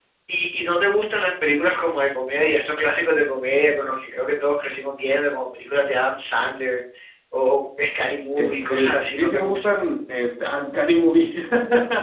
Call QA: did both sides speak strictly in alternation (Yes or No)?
No